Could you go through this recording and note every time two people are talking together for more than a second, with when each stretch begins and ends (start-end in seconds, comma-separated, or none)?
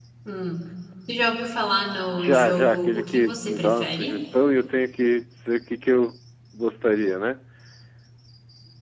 2.1-4.2